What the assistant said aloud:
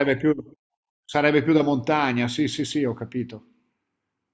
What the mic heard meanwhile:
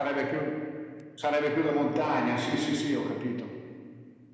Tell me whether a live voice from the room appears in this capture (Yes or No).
No